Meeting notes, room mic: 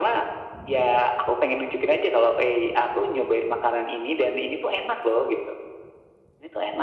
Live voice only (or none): none